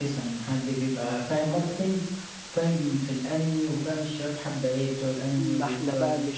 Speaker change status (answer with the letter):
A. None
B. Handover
B